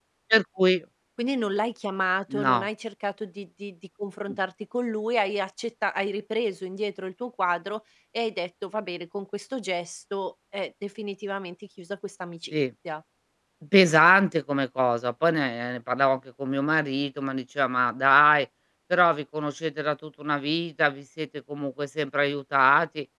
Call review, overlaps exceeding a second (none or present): none